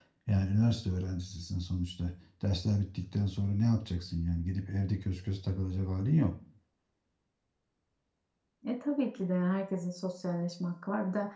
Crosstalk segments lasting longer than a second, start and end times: none

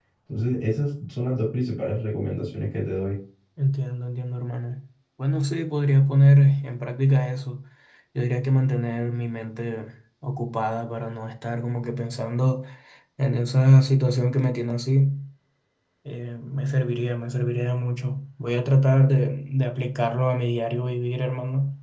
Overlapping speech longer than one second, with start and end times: none

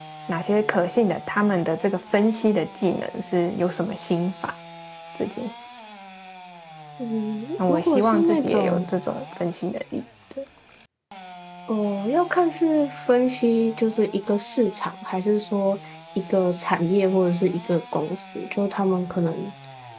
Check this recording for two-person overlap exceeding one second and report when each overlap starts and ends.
7.7-8.9

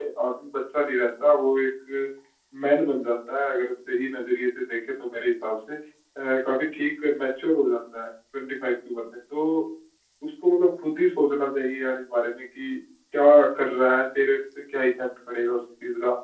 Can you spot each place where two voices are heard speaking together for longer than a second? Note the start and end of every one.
none

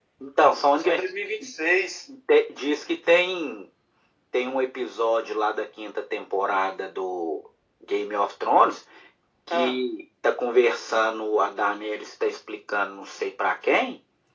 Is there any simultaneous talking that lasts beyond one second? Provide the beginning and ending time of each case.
none

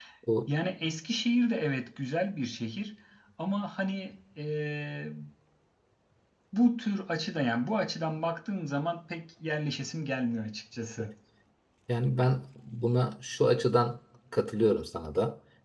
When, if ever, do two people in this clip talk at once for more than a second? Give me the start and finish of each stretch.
none

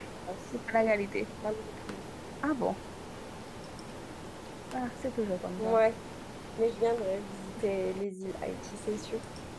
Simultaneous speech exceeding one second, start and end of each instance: none

